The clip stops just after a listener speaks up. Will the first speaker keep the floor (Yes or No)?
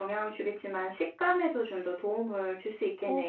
No